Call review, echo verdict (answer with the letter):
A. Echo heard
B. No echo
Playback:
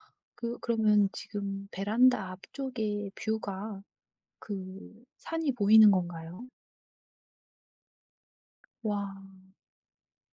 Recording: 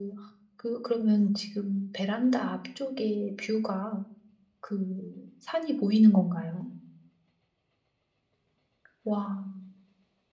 A